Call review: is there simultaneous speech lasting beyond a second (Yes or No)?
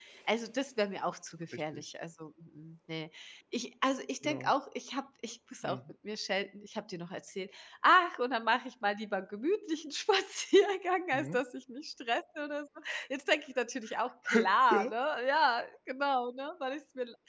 No